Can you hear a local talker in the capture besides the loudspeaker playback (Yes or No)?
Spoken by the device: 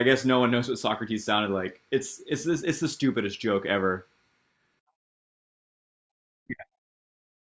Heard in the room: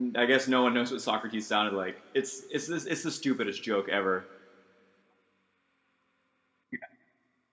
No